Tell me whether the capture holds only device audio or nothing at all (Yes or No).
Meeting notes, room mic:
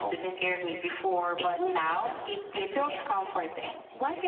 Yes